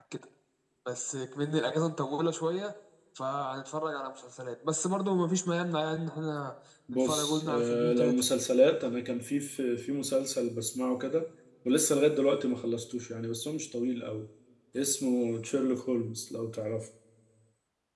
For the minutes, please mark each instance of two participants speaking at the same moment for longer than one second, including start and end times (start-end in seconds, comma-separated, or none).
6.9-8.2